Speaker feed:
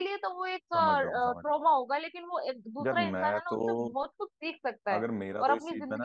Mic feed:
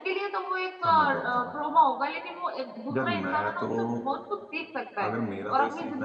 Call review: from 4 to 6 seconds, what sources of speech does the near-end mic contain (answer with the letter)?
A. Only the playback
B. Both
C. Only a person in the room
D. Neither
A